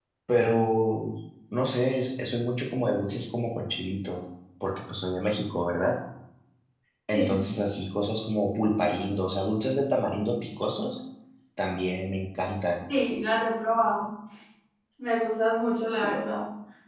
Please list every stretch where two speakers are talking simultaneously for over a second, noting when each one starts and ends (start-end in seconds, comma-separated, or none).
none